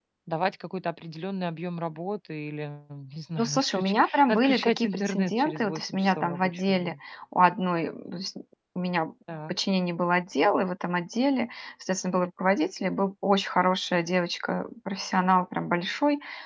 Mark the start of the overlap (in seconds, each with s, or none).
3.4 s